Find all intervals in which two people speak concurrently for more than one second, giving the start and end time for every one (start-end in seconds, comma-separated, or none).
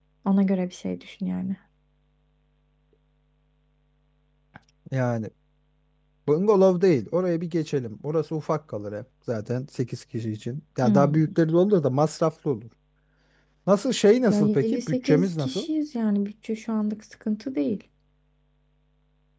14.3-15.7